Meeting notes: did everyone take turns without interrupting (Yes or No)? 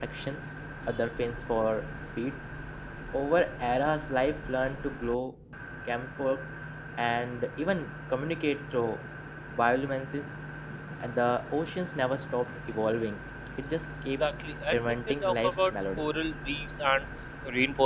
No